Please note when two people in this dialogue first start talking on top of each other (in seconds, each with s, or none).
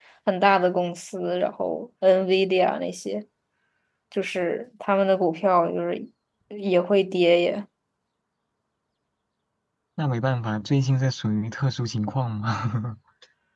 none